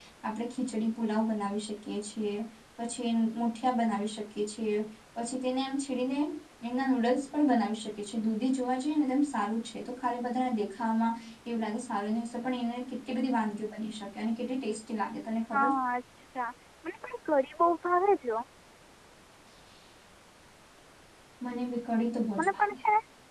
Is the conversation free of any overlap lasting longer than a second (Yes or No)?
Yes